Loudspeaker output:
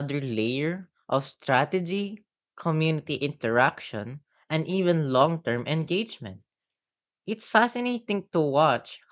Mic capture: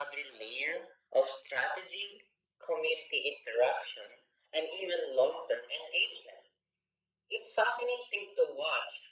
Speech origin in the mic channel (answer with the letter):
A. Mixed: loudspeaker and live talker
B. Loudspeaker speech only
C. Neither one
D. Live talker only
B